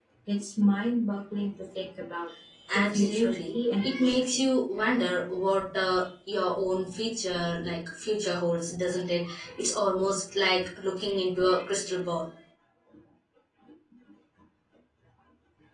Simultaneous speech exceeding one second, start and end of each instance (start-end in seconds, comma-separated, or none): 2.7-4.4